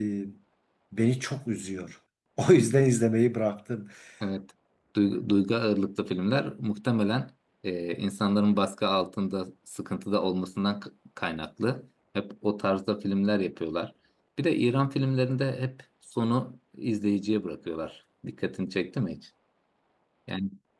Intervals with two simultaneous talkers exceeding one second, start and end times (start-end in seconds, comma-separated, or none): none